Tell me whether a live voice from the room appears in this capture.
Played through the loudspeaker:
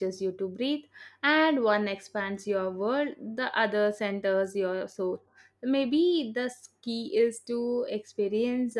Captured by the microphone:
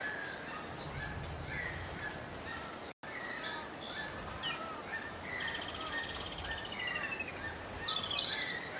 No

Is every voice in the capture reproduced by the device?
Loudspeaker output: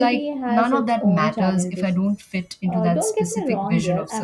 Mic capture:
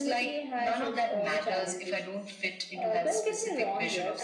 Yes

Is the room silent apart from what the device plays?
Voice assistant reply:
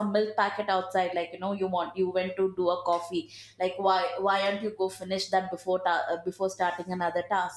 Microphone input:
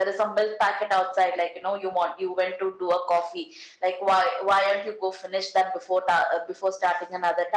Yes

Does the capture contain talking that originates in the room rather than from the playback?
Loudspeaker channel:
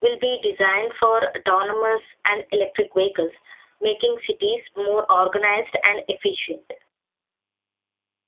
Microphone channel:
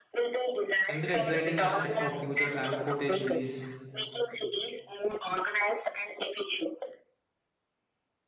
Yes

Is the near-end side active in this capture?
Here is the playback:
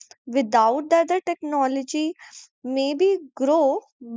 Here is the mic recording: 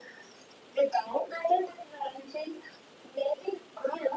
No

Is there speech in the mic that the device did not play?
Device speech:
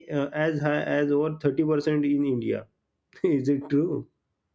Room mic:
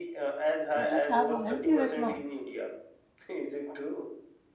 Yes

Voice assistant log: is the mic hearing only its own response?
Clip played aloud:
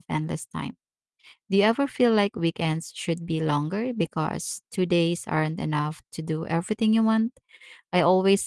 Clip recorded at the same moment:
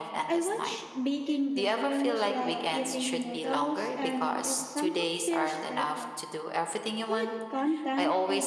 No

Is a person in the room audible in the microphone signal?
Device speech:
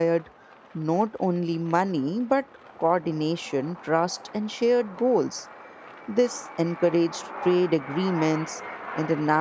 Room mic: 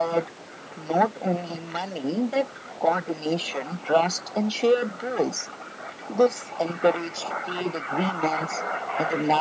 No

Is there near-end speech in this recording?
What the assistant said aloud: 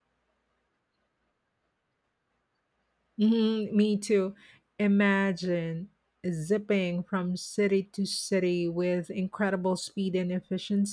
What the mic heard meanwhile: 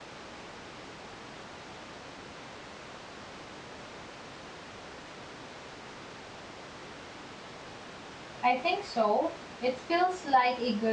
Yes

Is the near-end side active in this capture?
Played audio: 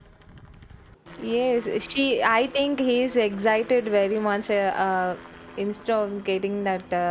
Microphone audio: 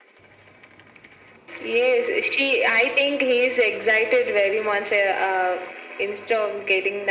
No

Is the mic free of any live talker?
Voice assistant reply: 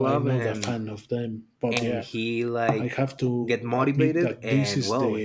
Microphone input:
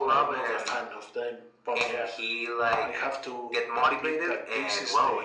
Yes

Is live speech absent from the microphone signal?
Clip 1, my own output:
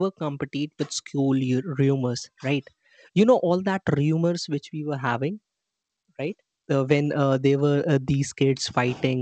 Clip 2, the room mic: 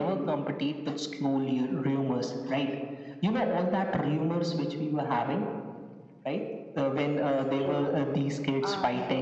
No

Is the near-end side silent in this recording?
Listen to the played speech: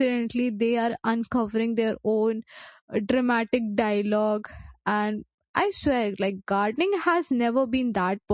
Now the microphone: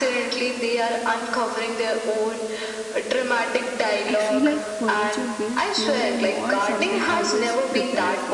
No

